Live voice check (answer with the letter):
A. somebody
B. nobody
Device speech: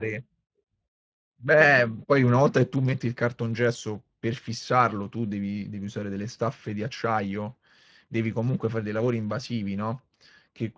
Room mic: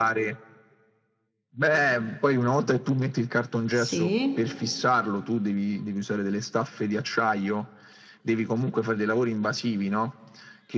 A